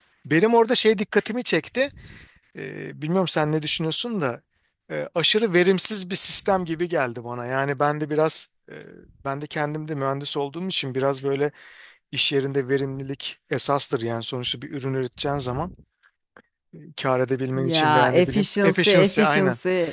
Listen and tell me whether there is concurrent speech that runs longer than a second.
Yes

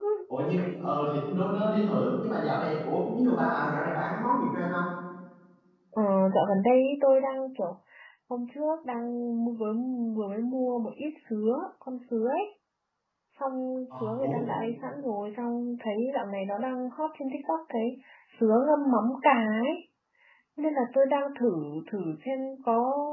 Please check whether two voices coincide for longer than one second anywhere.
No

